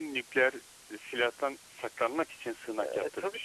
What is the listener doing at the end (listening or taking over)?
taking over